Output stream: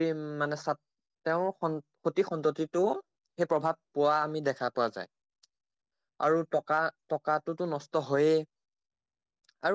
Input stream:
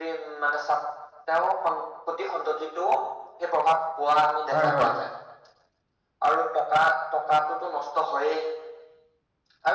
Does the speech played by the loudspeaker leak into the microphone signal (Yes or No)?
Yes